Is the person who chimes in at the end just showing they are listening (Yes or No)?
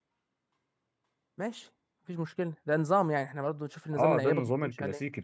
No